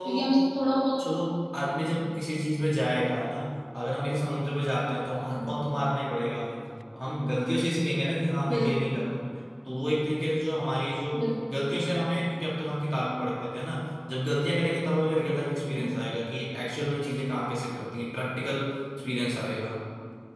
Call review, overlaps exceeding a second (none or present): none